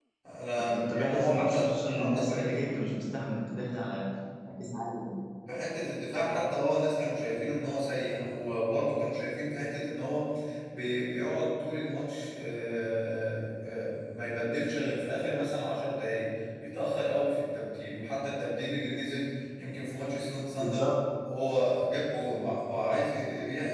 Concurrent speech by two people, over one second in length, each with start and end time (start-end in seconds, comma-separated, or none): 0.6-2.6